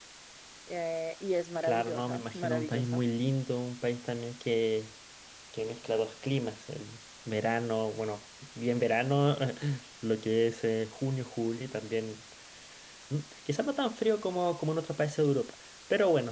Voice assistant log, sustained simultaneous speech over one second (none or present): present